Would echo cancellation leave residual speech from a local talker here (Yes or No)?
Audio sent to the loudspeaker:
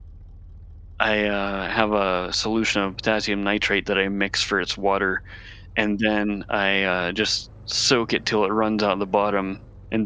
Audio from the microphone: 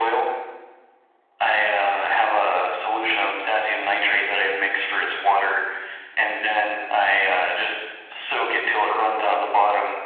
No